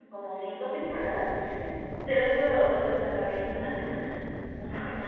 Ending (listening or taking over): listening